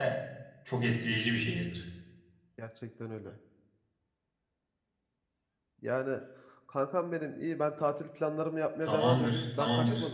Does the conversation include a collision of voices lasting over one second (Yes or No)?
Yes